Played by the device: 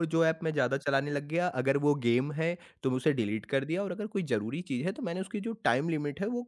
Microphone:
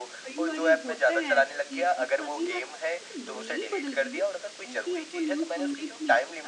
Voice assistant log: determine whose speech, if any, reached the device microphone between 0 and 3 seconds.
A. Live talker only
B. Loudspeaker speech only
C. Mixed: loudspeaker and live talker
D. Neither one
C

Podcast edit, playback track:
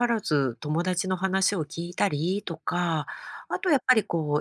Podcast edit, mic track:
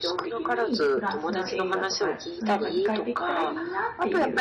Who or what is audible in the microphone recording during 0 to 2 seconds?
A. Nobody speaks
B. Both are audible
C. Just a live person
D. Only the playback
B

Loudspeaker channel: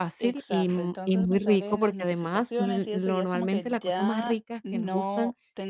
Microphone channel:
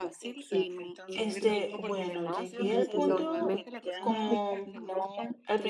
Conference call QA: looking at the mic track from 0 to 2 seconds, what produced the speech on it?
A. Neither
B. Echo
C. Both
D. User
C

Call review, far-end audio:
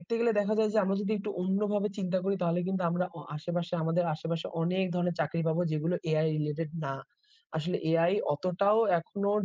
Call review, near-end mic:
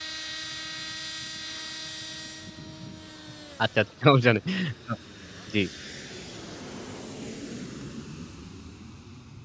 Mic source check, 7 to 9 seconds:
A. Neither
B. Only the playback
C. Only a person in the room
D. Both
A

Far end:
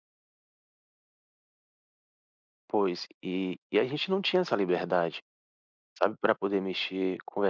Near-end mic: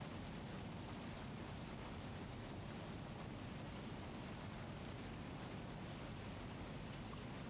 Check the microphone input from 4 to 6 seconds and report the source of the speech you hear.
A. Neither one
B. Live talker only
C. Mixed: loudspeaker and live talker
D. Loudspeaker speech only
A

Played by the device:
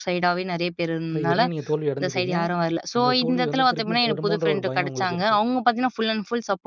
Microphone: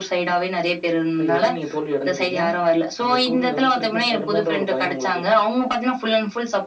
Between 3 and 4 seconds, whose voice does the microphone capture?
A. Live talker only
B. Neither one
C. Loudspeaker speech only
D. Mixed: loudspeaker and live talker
C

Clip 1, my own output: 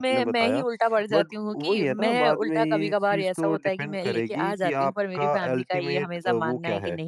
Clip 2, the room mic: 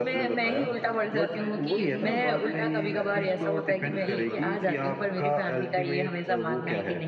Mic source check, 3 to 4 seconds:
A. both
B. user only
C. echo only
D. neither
A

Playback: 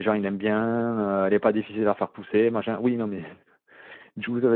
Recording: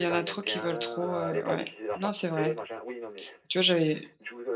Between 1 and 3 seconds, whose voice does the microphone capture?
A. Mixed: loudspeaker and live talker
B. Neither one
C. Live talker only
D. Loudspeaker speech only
A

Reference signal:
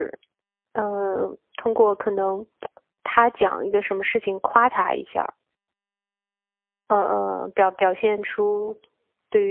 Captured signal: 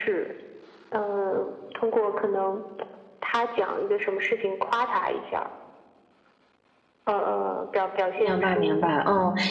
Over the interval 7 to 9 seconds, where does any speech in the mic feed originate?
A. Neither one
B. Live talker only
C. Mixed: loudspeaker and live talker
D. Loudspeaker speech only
C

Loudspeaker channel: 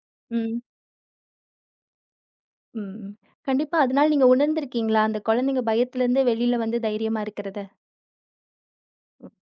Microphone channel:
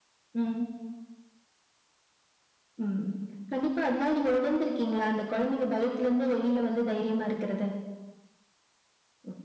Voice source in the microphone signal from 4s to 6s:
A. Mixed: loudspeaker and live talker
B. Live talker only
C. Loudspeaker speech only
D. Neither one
C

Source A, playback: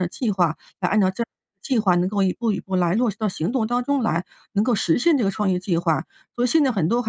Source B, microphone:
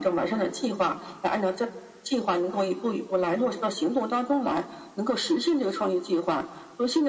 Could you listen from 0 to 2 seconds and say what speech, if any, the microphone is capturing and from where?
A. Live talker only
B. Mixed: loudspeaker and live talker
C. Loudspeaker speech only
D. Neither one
C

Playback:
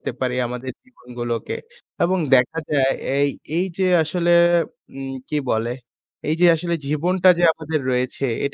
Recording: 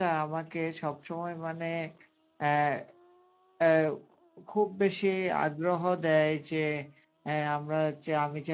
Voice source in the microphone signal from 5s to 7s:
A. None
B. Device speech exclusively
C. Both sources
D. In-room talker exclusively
D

